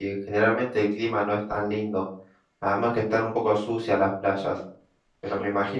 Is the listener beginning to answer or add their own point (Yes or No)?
No